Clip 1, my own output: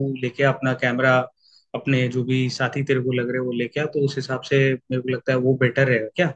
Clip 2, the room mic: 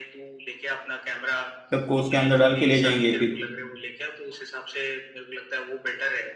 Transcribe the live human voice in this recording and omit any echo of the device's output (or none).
सबको उसके अंदर डाल के ले जाएंगे फिर